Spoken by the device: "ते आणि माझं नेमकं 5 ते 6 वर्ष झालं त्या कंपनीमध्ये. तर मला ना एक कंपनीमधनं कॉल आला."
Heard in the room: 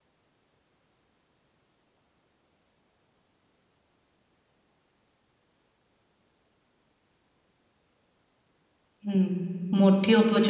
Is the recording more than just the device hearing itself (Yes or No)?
Yes